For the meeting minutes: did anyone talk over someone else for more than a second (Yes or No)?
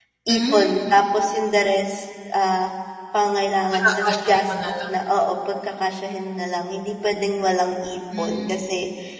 Yes